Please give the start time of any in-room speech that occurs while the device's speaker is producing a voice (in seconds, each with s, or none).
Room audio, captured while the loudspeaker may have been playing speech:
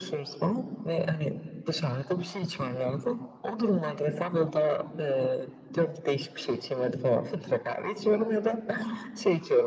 none